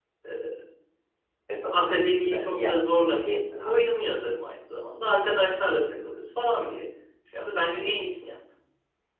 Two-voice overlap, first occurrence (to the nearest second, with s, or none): 2 s